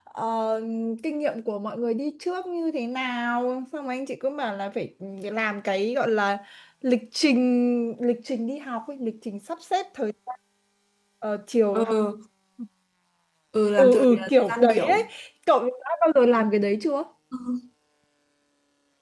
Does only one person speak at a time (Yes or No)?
No